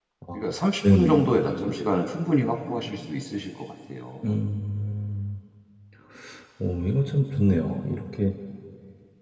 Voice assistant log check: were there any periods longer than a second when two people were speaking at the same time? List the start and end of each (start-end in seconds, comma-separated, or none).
none